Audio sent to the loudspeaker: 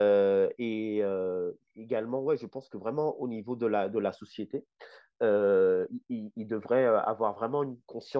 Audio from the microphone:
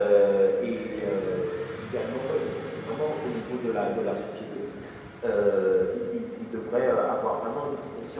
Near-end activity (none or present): none